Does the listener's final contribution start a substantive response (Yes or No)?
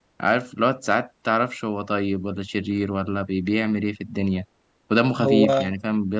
No